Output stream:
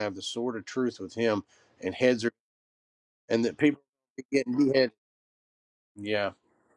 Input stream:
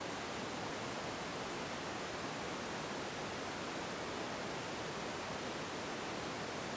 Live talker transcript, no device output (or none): none